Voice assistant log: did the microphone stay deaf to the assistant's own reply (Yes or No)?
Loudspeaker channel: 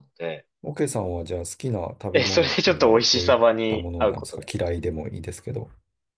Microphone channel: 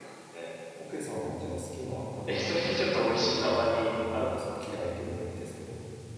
No